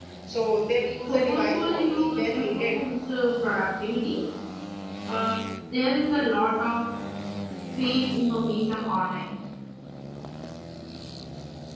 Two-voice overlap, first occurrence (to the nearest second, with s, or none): 1 s